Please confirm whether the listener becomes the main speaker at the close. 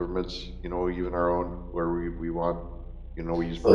Yes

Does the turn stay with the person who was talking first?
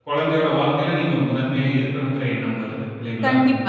No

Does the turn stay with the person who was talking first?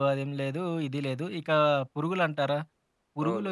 Yes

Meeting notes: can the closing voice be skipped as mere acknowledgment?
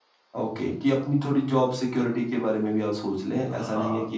No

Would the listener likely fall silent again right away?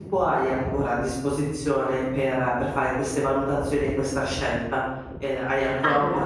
Yes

